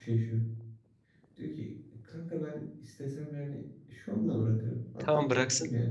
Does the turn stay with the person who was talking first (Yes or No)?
No